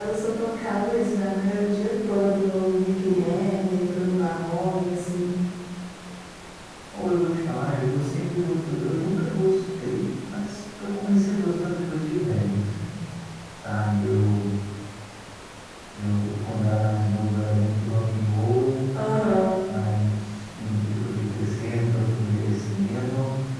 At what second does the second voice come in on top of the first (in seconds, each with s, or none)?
none